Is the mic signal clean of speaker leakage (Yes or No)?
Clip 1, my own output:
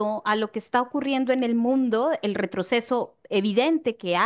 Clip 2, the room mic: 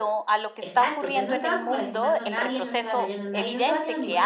No